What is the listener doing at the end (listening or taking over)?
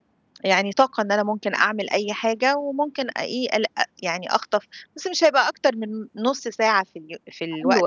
taking over